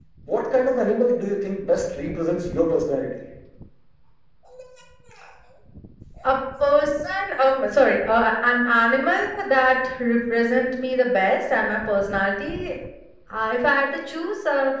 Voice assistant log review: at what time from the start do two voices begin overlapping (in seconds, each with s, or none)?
none